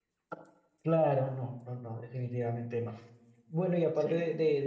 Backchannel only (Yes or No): Yes